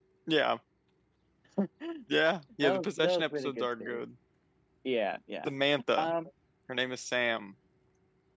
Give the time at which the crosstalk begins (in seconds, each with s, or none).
2.8 s